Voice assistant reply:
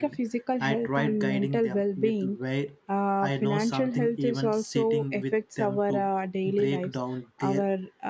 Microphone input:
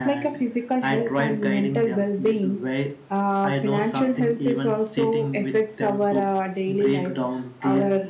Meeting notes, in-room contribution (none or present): none